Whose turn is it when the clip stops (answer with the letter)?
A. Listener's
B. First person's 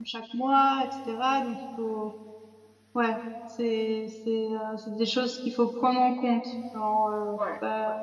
B